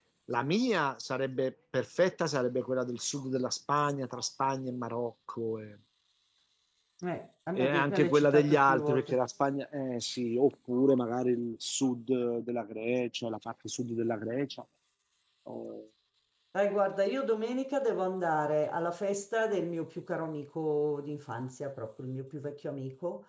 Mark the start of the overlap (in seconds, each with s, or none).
7.5 s